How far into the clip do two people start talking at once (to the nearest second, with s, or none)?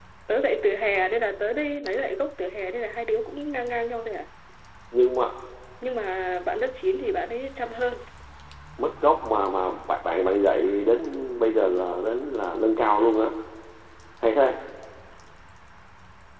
none